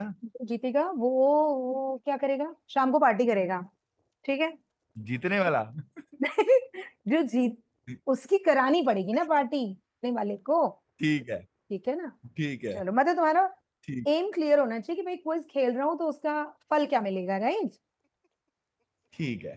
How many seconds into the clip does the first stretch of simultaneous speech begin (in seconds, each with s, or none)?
none